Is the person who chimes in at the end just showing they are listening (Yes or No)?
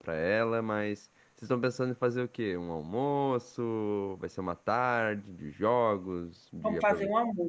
No